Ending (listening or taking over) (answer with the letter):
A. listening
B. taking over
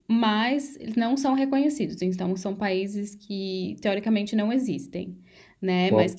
A